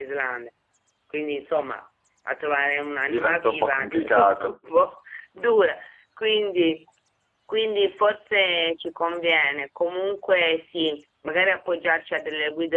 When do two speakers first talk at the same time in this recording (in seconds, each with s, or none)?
3.0 s